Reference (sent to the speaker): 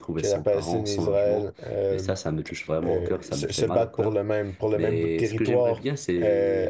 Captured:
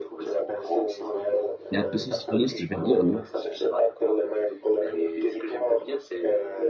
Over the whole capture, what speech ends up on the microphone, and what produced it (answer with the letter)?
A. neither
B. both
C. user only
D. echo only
B